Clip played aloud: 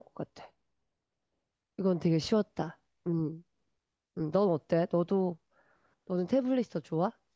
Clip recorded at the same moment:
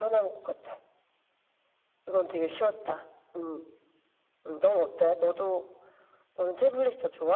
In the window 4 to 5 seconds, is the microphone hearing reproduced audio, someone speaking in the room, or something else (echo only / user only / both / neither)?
echo only